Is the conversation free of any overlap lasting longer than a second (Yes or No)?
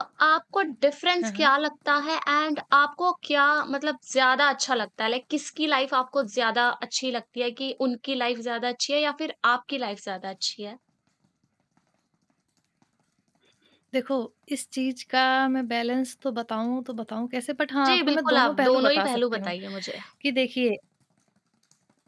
No